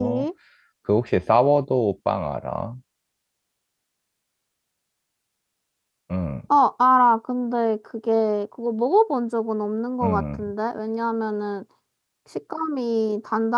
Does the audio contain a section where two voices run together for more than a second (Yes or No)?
No